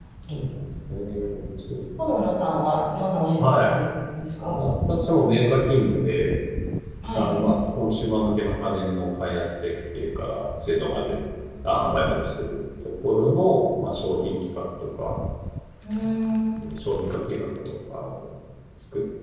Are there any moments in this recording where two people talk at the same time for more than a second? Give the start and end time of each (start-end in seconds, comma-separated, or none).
none